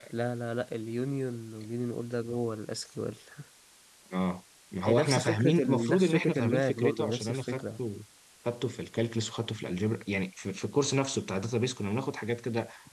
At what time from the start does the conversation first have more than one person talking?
5 s

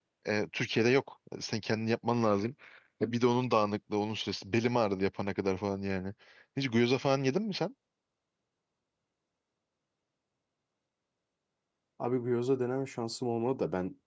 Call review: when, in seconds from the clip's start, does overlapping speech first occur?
none

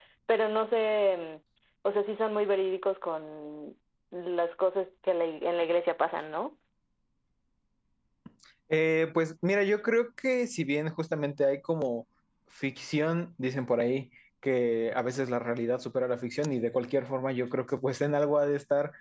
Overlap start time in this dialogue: none

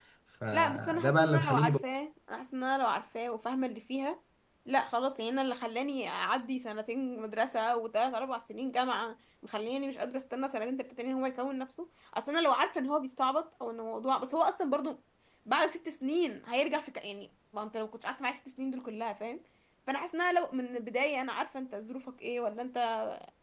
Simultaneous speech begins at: 1 s

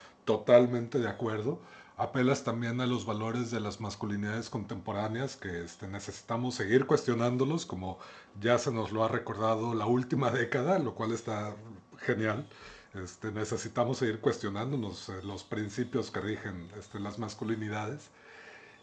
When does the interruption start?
none

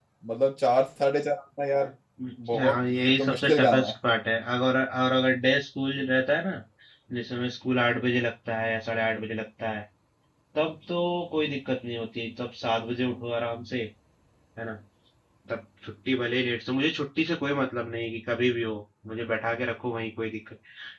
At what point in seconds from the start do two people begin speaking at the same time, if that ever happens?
3 s

